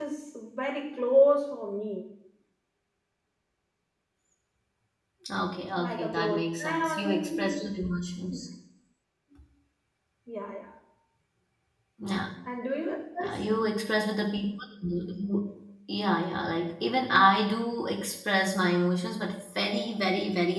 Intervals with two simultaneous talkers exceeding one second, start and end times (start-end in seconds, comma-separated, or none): 5.8-7.6